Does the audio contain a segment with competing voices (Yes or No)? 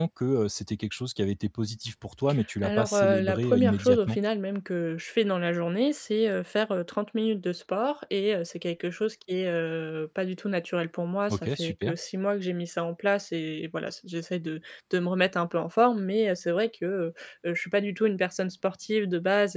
Yes